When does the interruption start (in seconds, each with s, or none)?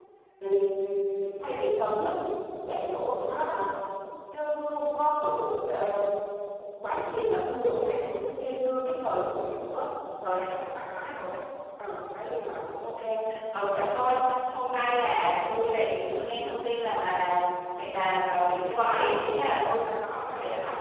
none